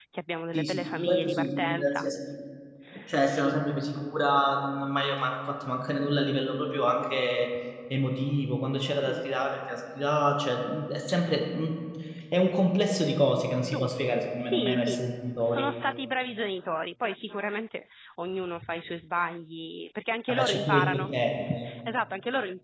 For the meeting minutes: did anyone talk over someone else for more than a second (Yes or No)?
Yes